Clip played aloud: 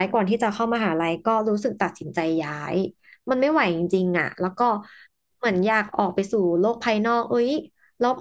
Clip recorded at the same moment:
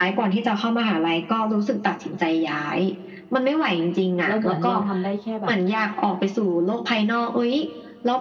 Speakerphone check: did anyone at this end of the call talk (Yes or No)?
Yes